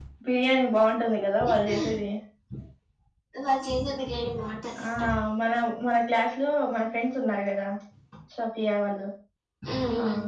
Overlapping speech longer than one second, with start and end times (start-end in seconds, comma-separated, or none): none